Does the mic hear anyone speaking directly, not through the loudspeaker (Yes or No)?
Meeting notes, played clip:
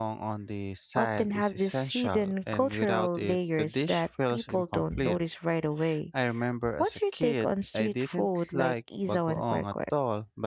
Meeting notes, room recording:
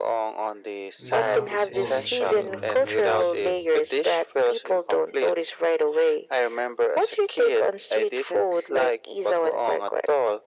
Yes